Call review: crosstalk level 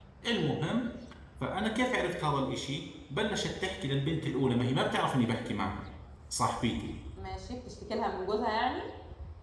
none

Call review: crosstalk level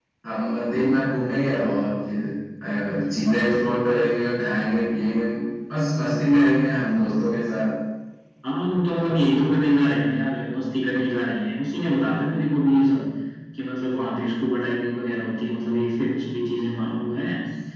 none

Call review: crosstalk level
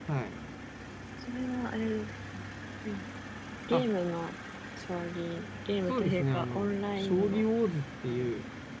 present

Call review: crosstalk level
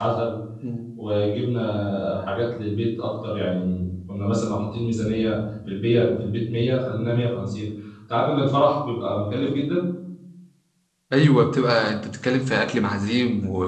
none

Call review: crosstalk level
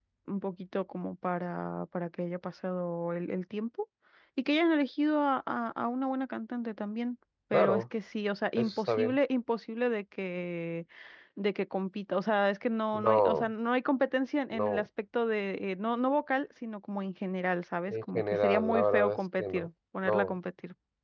present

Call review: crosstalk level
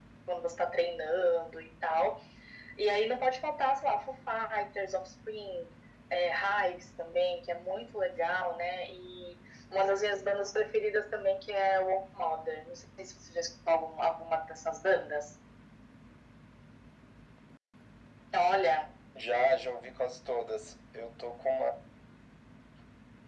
none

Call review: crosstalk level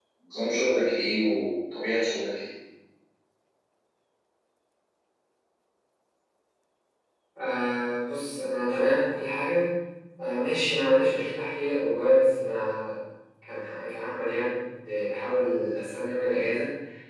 none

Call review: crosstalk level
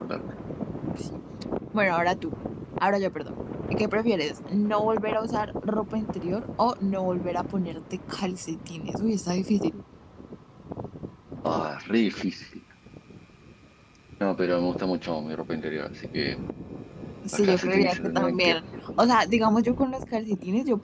present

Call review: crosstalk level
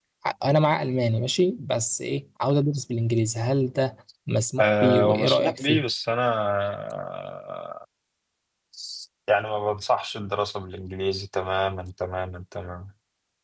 present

